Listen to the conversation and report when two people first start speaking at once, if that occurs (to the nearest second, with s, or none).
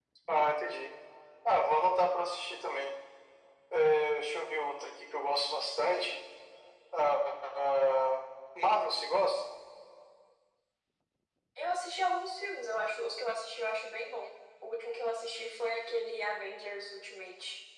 none